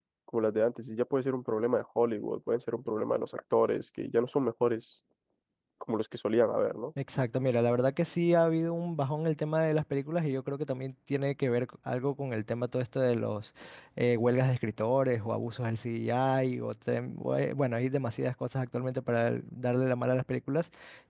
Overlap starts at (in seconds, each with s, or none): none